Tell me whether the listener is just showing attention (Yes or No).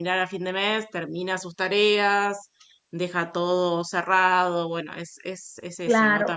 No